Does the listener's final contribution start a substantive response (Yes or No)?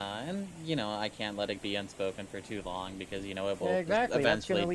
Yes